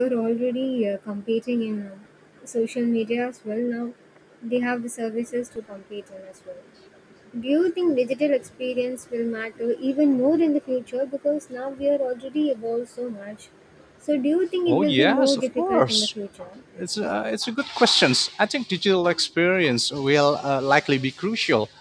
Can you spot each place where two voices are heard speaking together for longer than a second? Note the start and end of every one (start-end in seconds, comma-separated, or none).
14.7-16.1